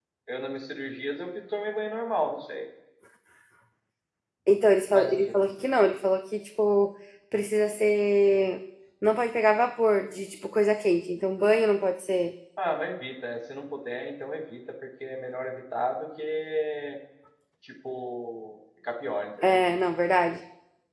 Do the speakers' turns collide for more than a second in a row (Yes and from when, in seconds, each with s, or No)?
No